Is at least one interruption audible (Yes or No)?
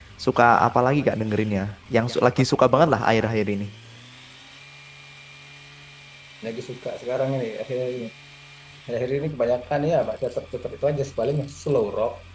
No